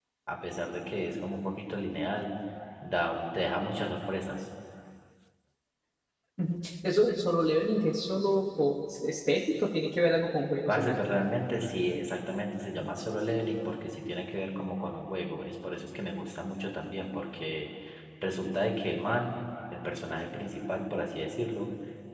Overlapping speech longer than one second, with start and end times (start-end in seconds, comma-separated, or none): none